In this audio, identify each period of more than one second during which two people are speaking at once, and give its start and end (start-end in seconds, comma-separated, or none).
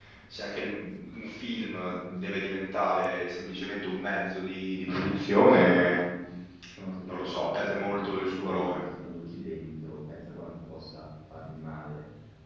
7.1-8.8